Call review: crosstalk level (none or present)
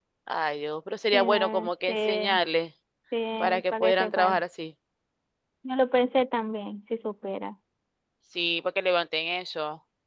present